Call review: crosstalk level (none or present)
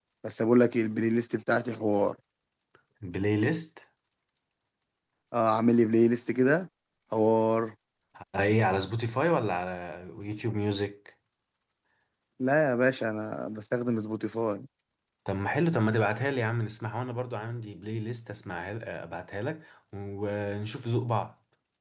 none